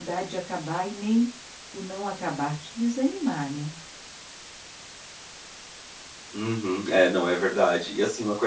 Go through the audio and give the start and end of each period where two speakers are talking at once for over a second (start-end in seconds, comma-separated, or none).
none